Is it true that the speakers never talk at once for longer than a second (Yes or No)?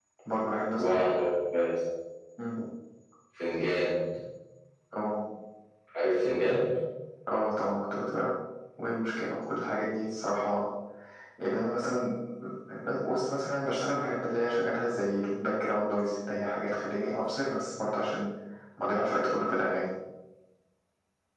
Yes